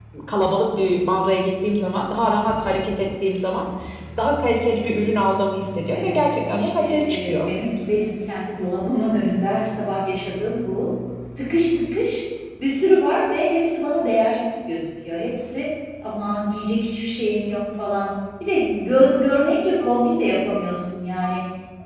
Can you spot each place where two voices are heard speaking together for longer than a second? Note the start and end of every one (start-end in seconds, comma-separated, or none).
5.9-7.5